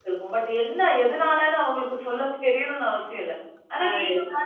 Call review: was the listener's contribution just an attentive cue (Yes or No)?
Yes